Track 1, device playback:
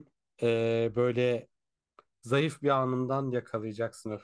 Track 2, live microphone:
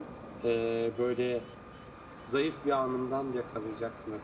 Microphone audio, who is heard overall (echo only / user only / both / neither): echo only